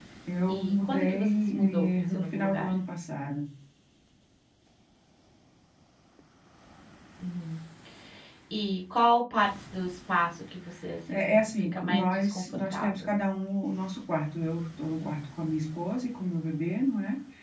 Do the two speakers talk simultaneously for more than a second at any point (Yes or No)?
Yes